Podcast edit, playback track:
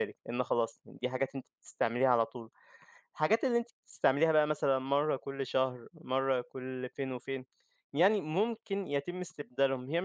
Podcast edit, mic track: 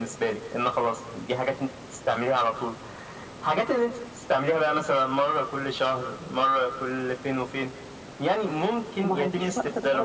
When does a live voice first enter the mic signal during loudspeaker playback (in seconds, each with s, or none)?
9.0 s